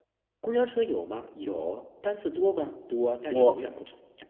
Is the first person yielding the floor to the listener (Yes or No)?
No